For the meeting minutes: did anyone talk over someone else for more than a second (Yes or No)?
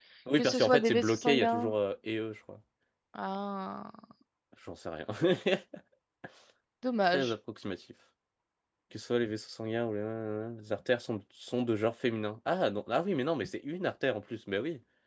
Yes